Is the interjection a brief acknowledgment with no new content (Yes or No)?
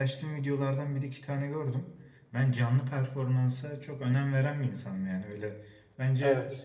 Yes